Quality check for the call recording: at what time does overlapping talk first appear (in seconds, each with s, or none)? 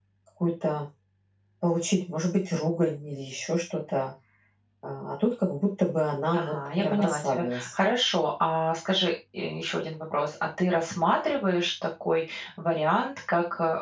6.3 s